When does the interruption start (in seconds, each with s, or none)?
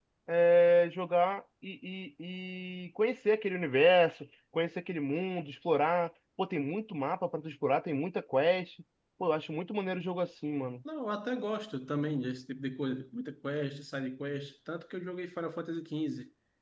none